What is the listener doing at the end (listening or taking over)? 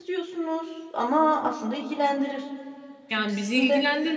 taking over